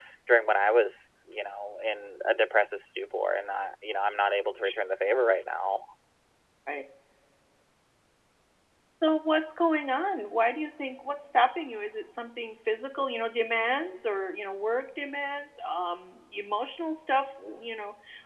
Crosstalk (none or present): none